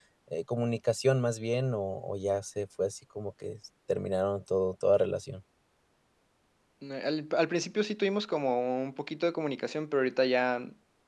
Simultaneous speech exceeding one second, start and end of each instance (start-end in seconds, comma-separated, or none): none